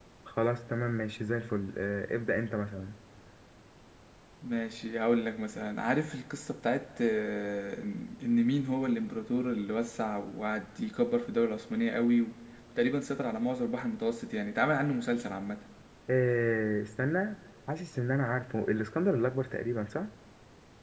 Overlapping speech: No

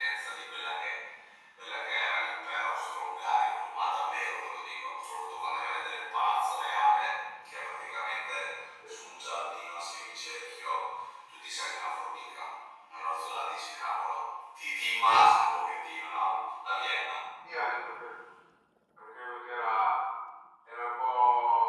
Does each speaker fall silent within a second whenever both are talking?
Yes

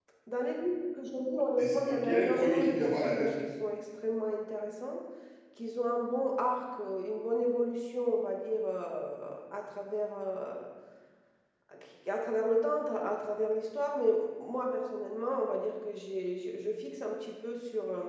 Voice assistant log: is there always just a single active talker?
No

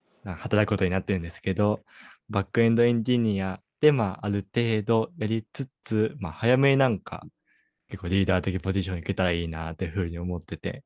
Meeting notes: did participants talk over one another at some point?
No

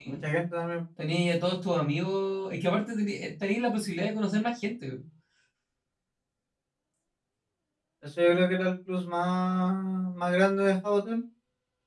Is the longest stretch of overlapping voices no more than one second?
Yes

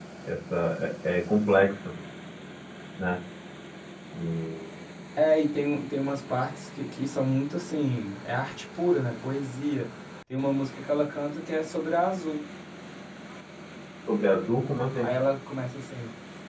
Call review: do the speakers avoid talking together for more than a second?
Yes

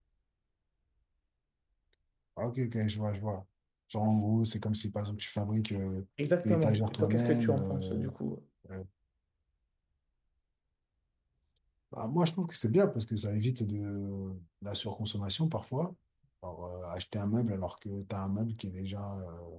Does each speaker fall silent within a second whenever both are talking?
No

